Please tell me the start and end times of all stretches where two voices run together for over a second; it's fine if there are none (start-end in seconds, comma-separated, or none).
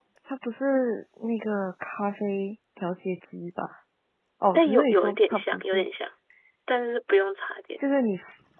4.5-5.9